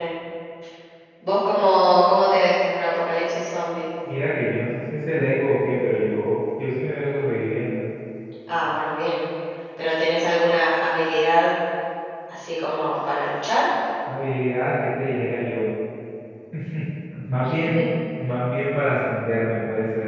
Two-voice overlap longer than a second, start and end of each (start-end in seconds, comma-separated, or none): none